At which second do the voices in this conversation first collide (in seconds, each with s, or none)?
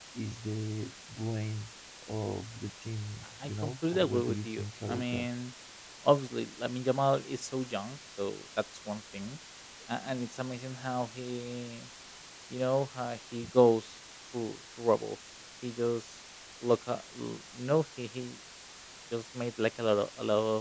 3.4 s